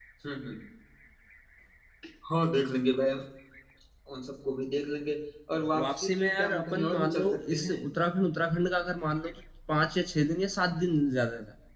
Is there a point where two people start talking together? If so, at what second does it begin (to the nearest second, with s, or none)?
6 s